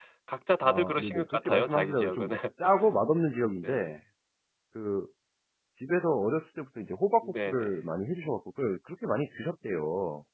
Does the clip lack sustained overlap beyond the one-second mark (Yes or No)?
No